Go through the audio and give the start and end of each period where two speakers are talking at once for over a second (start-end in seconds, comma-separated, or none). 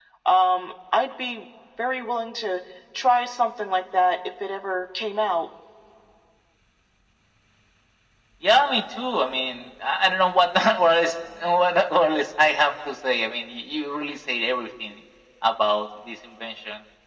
none